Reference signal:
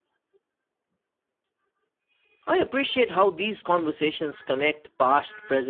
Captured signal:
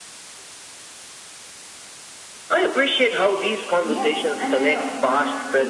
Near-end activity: present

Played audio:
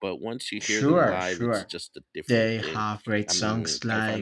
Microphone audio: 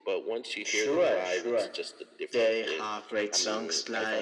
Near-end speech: none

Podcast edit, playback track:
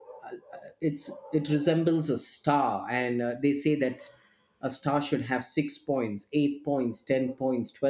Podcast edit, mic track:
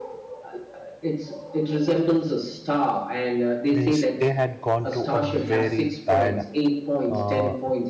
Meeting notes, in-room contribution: present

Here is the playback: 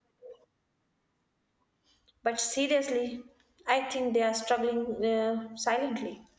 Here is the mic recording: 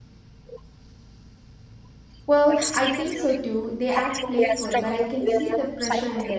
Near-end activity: present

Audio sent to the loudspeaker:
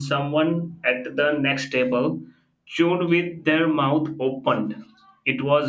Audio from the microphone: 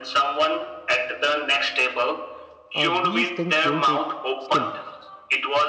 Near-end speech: present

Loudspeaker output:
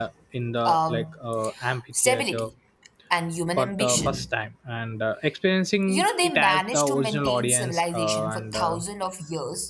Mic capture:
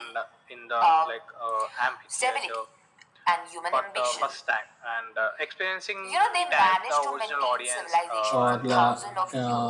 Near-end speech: present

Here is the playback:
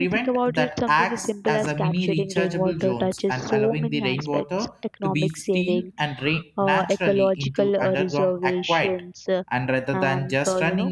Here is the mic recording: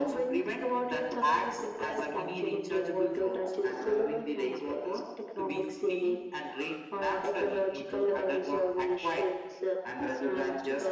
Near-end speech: present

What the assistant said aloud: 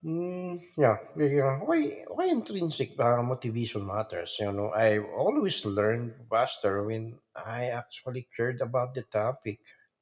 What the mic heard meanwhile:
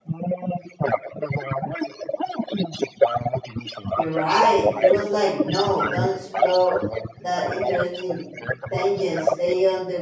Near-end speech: present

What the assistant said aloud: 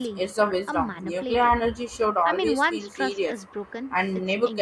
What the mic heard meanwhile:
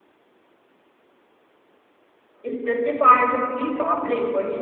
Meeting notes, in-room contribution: present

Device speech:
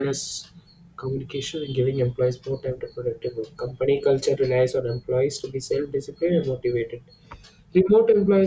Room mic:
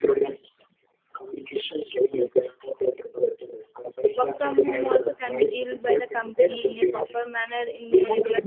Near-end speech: present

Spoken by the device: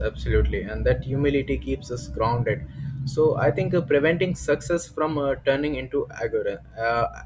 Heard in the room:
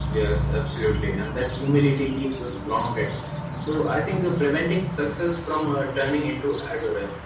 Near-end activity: none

